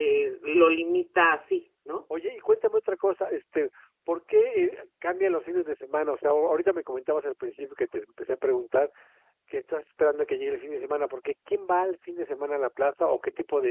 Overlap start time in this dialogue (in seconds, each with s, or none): none